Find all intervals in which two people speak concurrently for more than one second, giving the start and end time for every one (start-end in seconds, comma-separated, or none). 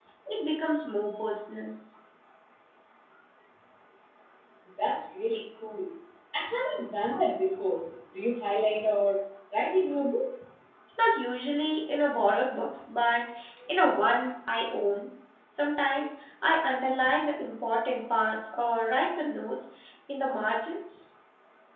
none